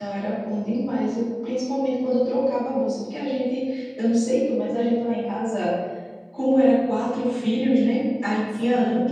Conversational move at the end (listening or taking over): listening